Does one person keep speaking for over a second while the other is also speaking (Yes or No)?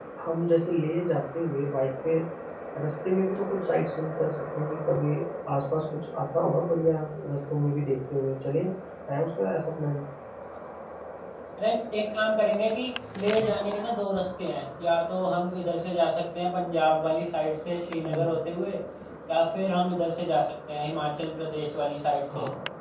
No